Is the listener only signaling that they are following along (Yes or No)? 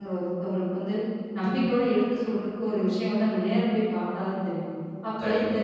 Yes